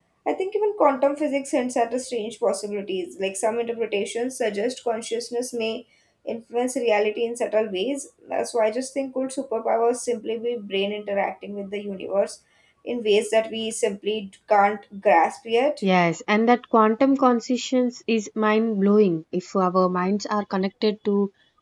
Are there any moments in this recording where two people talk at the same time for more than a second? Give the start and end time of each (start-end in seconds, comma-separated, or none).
none